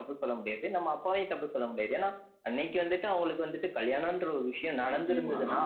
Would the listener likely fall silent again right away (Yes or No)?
No